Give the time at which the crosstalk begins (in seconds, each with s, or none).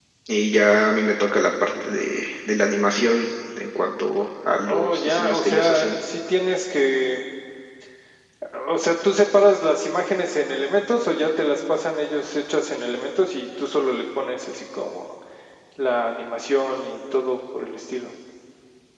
4.6 s